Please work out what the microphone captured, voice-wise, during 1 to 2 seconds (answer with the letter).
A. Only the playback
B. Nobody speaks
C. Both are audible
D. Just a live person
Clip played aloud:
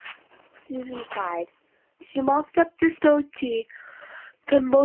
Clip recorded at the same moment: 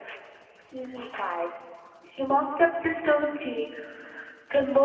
A